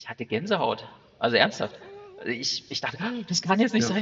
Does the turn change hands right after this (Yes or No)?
No